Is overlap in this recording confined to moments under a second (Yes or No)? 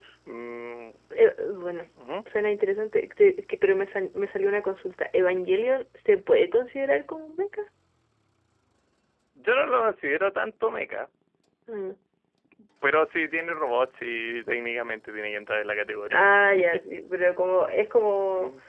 Yes